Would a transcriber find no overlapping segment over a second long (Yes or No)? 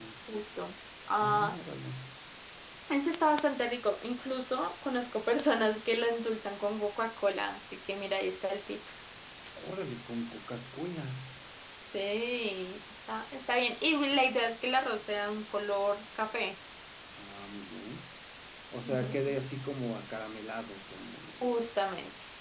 Yes